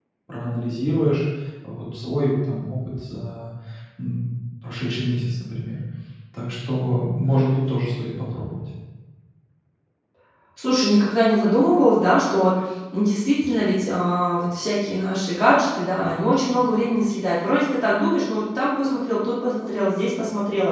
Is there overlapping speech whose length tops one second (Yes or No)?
No